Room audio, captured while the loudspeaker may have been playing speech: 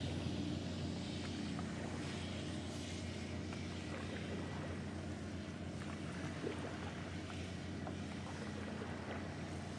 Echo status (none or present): none